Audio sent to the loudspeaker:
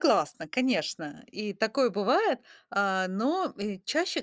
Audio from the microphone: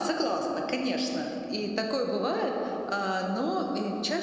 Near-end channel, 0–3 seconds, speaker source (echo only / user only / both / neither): echo only